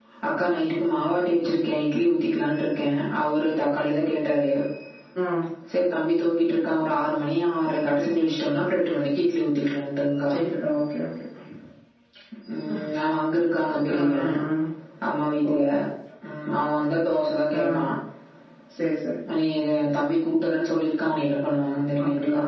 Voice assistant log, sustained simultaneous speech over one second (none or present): none